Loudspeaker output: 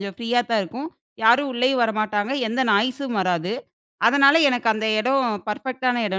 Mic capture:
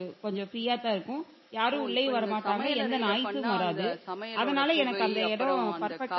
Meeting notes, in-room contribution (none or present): present